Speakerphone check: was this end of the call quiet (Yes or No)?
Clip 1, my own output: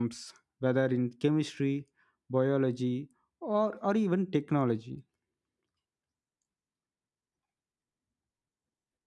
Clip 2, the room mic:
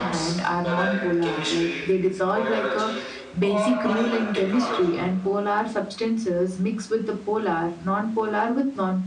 No